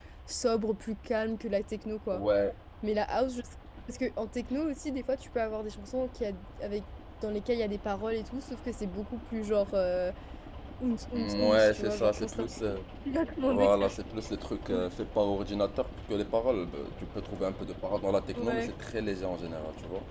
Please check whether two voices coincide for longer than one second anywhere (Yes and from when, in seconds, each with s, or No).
Yes, from 11.1 s